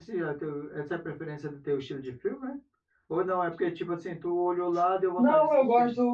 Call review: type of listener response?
taking over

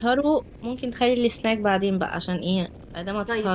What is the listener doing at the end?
taking over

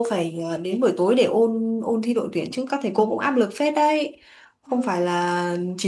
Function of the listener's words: listening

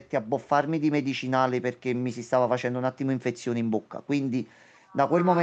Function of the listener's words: listening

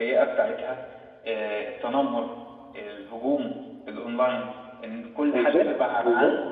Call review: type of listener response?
listening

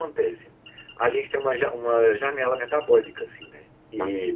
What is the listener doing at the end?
listening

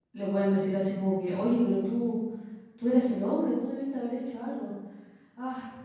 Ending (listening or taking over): listening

